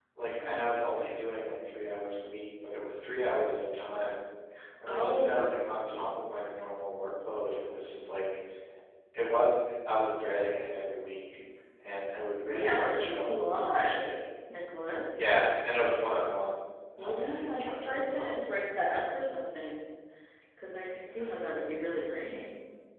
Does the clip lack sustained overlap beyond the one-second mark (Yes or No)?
No